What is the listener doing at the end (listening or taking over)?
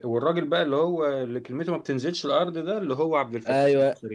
taking over